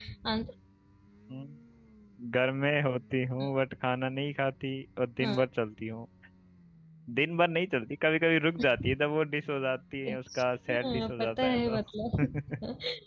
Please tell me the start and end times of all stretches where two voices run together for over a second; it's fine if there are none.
10.1-11.7

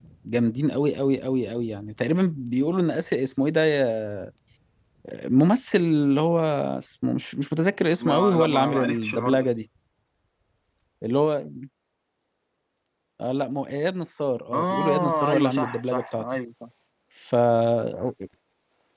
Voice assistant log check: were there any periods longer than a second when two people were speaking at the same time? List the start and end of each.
8.0-9.5, 14.5-16.2

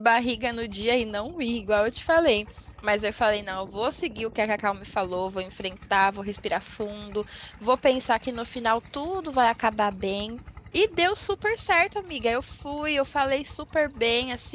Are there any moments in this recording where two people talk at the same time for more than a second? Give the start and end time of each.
none

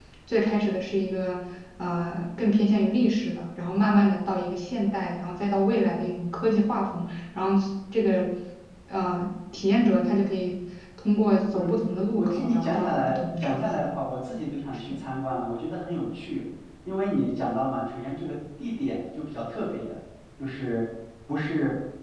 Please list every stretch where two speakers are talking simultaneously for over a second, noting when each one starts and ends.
11.6-13.8

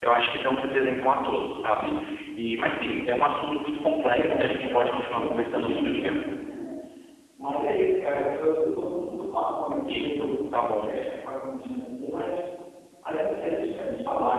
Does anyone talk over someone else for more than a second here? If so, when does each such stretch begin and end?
4.0-6.1

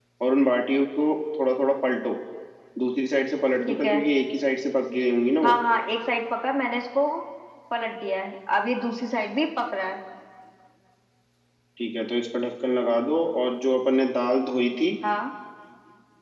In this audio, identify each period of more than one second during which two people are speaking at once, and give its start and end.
none

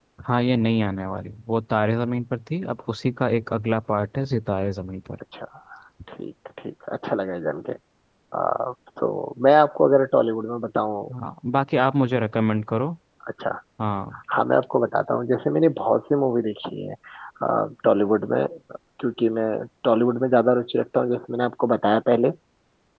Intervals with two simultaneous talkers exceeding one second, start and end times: none

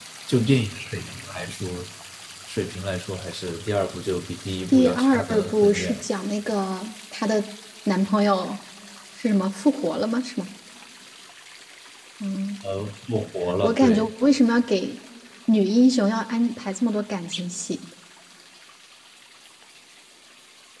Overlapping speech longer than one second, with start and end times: 4.7-6.0

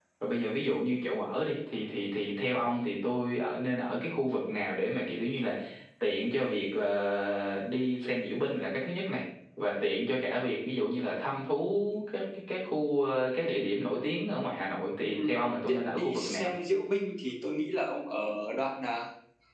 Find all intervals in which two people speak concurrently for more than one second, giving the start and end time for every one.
15.1-16.5

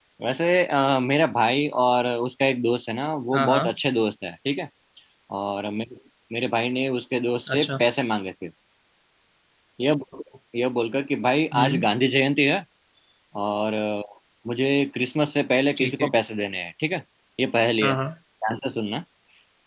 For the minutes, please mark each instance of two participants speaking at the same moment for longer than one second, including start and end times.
none

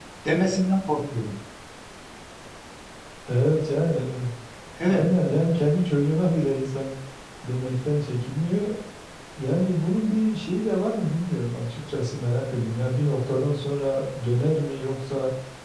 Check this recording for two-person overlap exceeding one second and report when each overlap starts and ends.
none

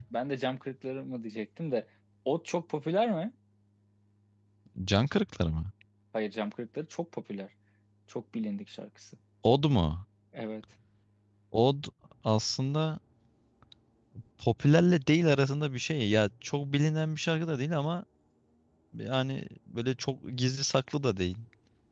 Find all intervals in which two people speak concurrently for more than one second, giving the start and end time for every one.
none

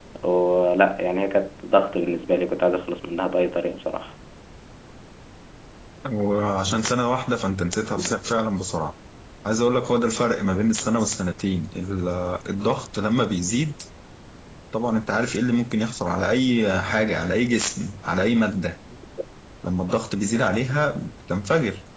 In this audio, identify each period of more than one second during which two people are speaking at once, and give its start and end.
none

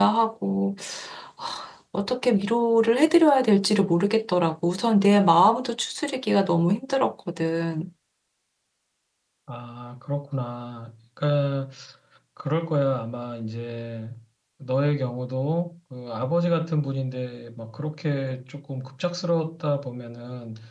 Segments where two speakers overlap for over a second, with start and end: none

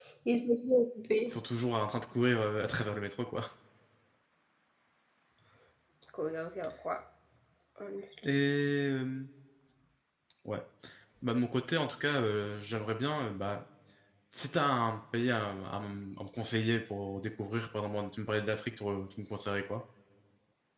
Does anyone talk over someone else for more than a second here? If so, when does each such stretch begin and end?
none

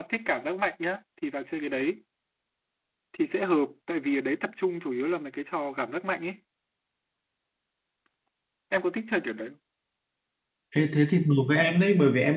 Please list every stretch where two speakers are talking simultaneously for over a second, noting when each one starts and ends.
none

